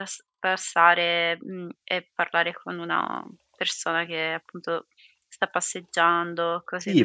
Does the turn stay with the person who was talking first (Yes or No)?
No